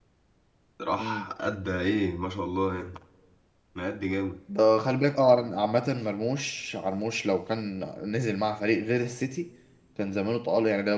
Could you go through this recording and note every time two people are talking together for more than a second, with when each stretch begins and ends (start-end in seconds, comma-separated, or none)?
none